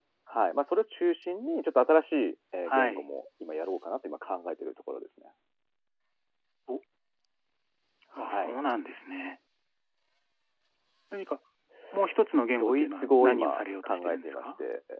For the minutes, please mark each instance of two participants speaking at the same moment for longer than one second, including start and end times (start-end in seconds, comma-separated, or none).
12.6-14.4